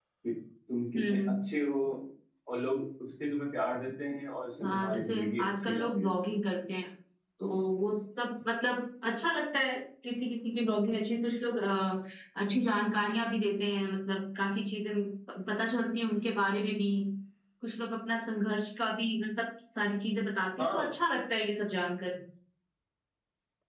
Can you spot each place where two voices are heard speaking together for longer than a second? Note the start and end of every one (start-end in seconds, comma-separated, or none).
4.6-6.1